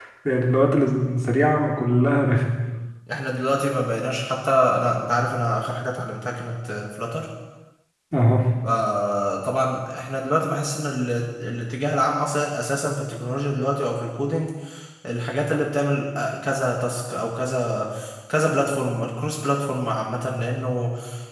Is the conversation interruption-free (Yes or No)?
Yes